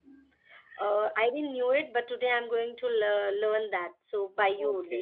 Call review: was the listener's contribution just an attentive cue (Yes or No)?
No